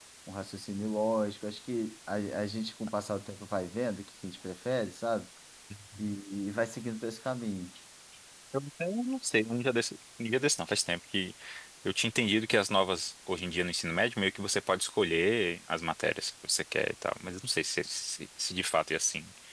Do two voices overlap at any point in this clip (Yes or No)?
No